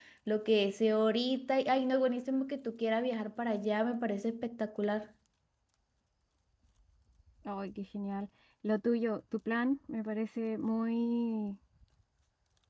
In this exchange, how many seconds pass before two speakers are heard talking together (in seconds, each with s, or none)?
none